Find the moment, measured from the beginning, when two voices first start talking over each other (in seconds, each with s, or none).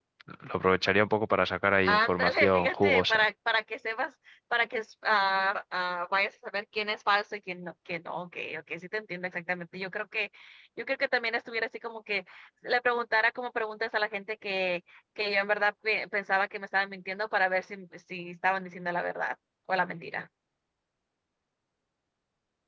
1.8 s